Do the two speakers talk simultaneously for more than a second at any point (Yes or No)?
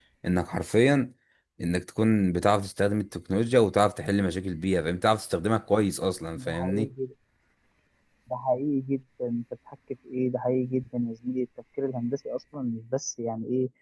No